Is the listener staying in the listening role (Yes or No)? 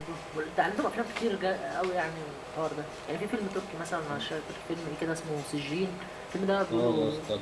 No